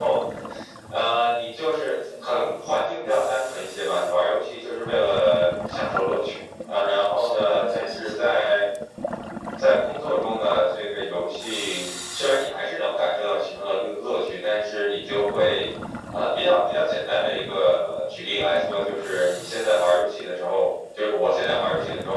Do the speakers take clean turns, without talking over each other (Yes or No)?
No